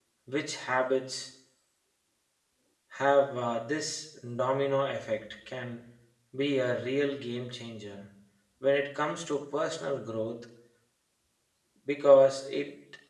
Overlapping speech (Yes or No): No